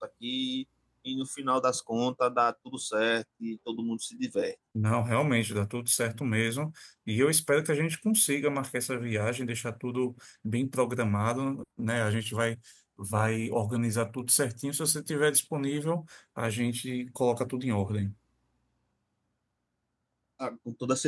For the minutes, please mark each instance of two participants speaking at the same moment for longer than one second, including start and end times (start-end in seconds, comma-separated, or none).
none